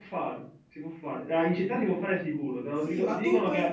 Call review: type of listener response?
taking over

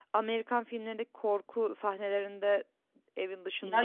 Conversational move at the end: taking over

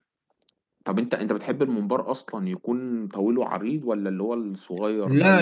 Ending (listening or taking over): taking over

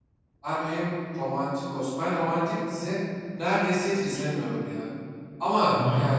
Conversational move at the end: listening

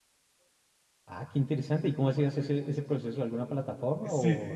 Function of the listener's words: taking over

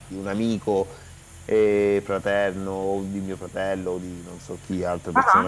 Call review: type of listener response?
listening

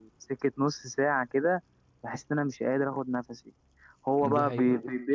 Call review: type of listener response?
listening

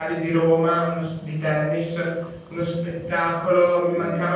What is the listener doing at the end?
listening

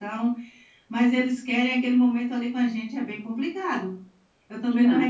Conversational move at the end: listening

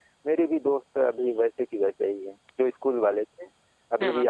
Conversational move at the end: listening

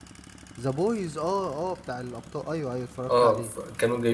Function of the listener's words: taking over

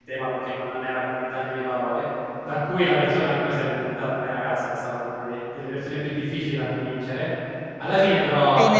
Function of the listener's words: taking over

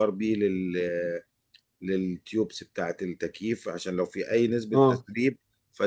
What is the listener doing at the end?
listening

